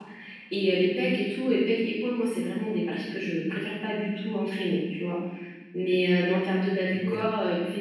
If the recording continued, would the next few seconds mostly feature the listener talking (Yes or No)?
No